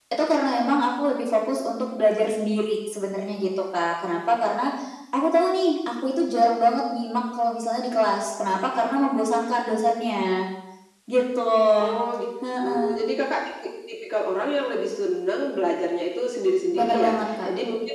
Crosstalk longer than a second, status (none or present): none